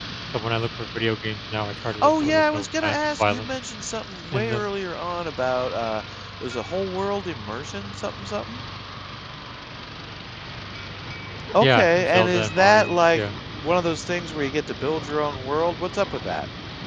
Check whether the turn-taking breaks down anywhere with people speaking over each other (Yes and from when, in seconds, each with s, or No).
Yes, from 2.0 s